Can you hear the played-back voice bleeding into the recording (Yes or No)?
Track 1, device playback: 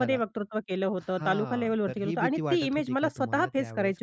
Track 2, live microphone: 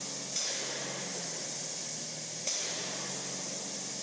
No